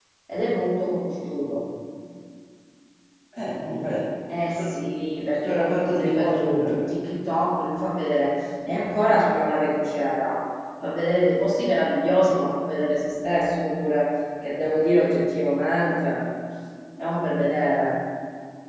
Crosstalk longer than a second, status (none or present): present